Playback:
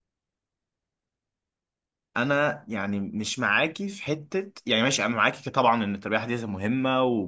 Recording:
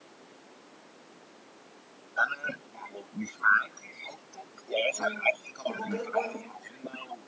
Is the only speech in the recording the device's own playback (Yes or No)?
No